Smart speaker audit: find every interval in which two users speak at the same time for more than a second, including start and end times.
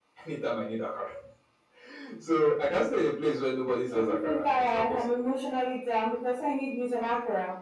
3.9-5.2

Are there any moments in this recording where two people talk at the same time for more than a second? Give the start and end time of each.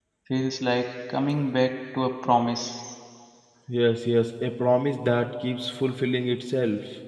none

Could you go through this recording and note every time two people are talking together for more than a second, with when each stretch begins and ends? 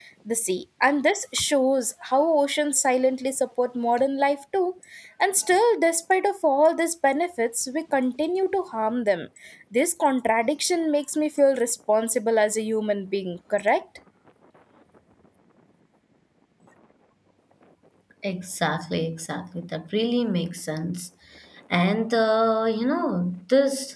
none

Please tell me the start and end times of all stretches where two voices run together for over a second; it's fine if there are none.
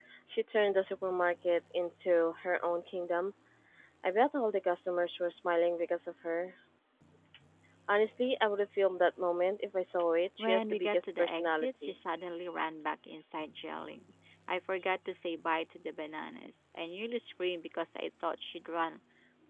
10.4-11.9

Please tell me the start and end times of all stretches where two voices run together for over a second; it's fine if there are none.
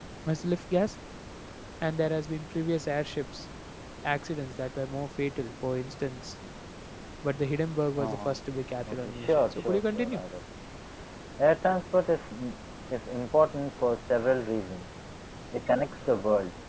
8.9-10.2

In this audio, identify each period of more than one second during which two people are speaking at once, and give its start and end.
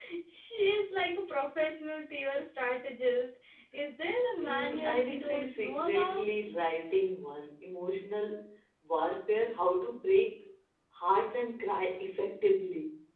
4.4-6.3

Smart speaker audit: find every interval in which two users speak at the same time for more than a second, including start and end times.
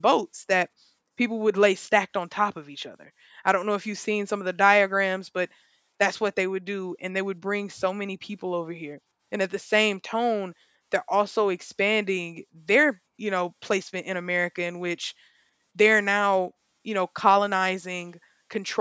none

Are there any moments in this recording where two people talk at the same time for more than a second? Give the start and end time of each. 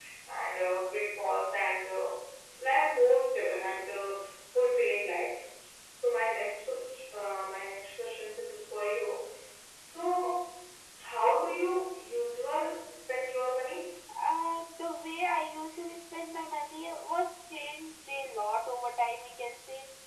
none

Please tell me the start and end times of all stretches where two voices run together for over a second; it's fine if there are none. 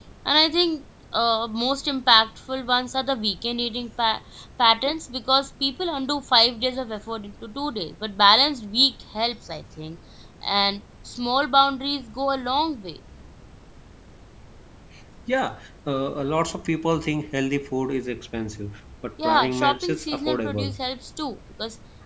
19.2-20.7

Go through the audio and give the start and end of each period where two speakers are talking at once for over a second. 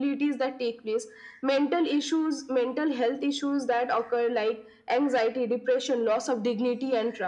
none

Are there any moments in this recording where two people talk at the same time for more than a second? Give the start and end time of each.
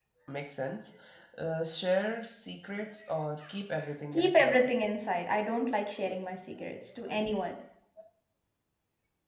none

